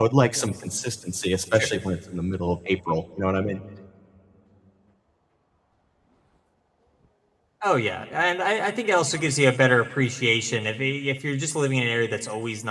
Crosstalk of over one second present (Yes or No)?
No